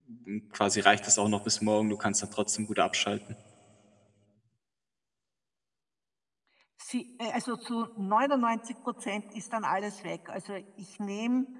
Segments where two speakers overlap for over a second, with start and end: none

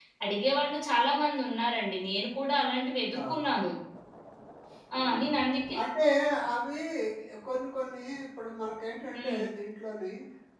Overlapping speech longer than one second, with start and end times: none

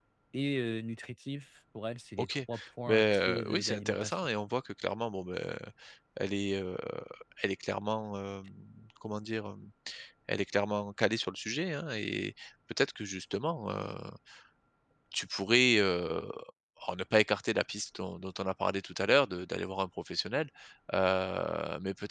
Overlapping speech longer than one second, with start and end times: 2.9-4.2

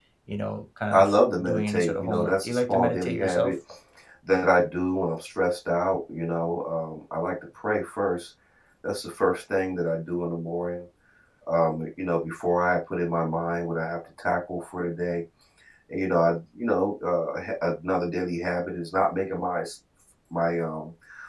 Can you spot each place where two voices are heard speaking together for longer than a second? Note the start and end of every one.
0.9-3.5

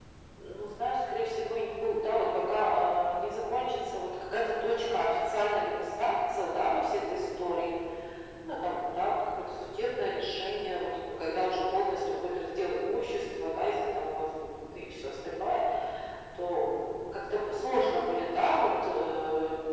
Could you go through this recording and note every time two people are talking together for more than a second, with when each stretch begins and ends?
none

